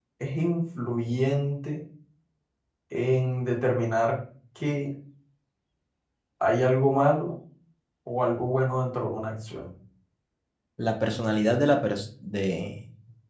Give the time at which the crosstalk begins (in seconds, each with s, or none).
none